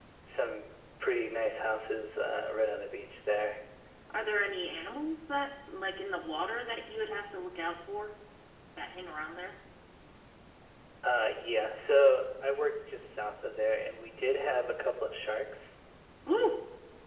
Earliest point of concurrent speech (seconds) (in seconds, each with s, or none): none